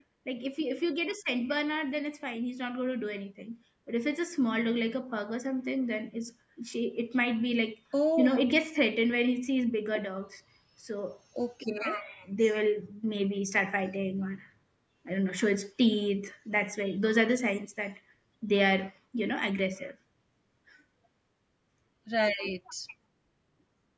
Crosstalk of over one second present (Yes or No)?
No